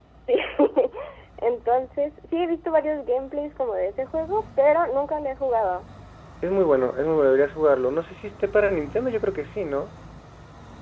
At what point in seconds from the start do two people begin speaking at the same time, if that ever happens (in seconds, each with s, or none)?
none